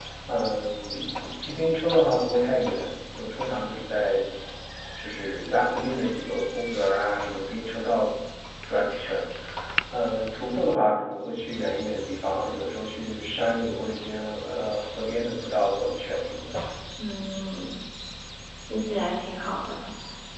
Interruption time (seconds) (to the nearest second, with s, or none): none